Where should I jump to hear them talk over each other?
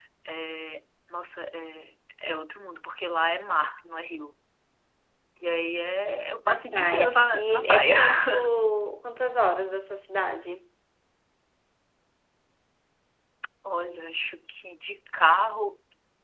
6.4 s

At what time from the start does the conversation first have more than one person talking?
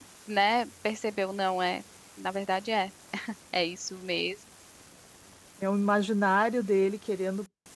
none

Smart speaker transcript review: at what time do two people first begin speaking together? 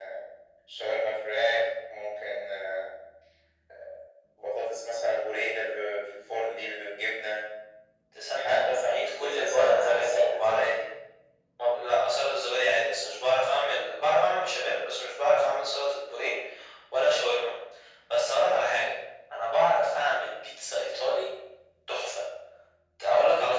8.3 s

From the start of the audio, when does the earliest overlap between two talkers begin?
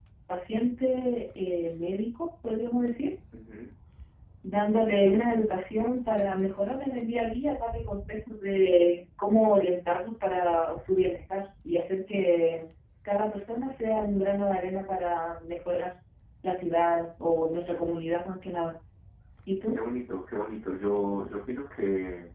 none

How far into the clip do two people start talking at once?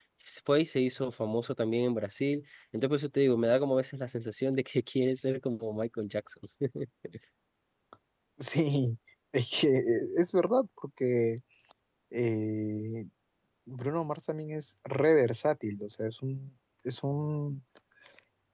none

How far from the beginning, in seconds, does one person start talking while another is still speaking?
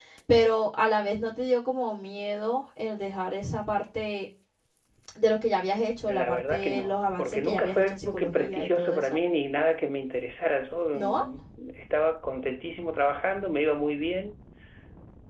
6.1 s

